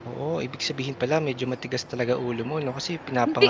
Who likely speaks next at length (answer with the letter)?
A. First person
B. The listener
A